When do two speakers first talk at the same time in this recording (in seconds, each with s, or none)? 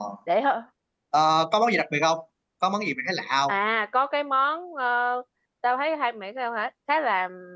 none